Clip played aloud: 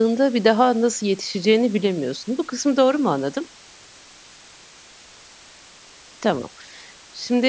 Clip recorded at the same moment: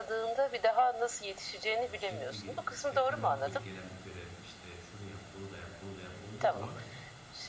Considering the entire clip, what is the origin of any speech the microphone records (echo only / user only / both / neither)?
both